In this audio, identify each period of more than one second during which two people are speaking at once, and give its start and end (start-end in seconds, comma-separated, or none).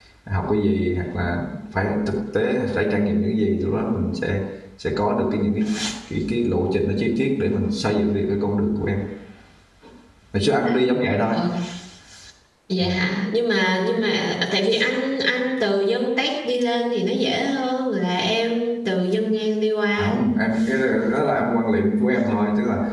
none